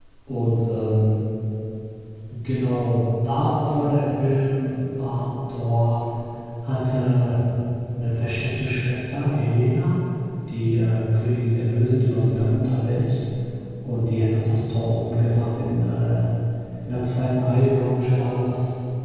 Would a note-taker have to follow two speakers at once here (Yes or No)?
No